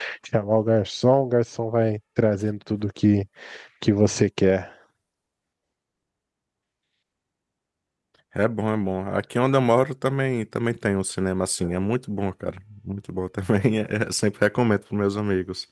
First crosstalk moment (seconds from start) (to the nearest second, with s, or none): none